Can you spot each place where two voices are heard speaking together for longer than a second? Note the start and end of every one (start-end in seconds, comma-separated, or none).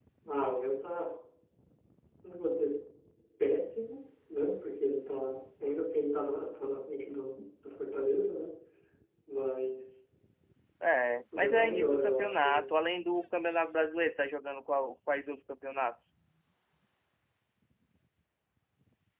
11.3-12.7